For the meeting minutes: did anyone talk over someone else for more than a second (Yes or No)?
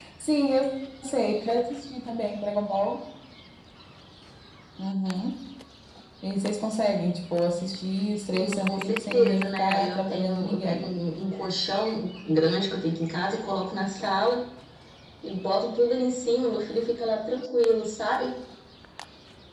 Yes